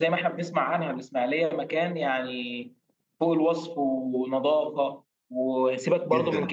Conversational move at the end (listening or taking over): listening